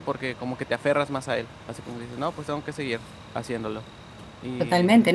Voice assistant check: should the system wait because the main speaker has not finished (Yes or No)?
No